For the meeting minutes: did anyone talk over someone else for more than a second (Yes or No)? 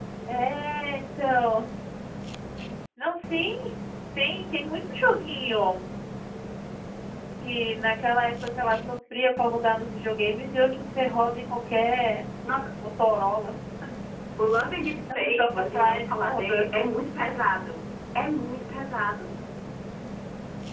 Yes